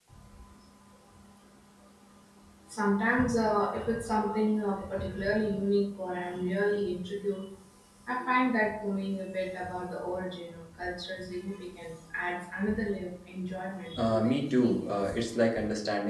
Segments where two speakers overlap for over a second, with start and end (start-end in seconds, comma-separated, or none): 14.0-15.2